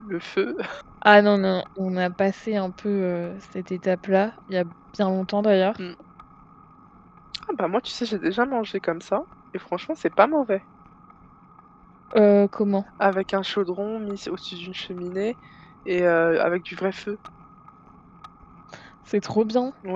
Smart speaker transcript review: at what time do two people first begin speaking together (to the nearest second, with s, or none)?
none